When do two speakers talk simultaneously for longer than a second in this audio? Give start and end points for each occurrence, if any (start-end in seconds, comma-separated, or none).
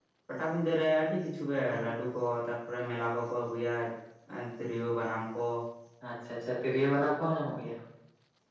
none